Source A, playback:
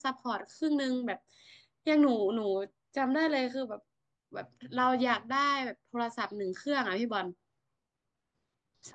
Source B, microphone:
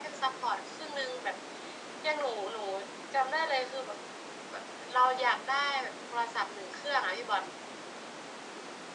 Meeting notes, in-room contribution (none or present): none